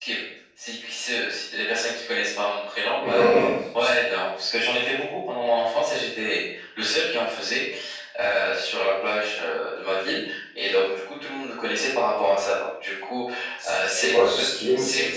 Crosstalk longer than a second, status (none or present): present